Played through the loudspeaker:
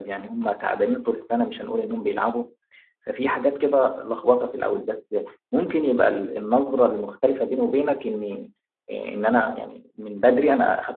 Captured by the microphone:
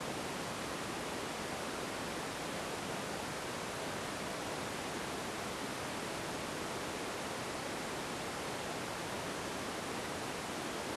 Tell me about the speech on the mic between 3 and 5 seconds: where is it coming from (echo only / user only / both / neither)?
neither